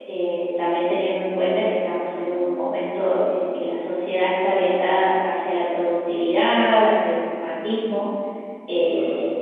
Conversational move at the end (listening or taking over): listening